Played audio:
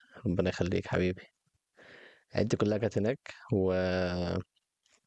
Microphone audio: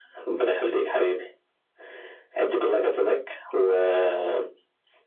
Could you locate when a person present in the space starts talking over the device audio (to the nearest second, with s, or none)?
none